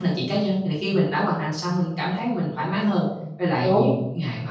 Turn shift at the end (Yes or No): No